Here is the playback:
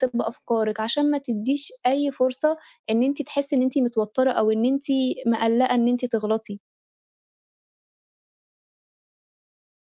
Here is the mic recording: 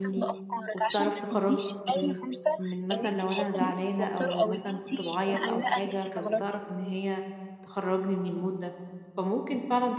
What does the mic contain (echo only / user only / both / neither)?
both